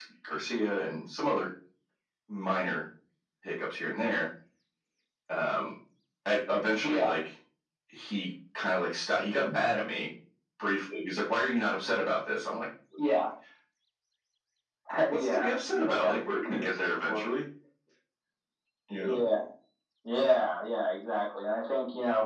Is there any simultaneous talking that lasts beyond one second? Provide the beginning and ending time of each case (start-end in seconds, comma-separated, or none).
15.1-17.2